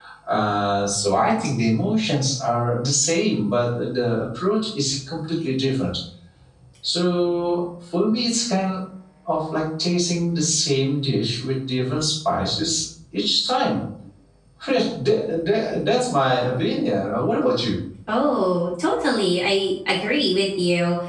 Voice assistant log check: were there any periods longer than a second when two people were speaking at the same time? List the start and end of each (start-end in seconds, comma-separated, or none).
none